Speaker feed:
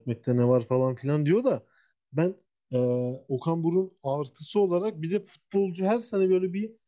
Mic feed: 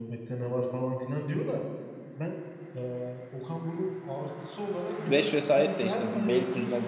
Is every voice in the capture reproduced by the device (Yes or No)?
No